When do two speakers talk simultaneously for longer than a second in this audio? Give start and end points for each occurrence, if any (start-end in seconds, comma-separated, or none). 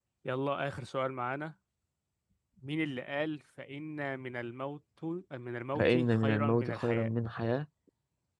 5.8-7.1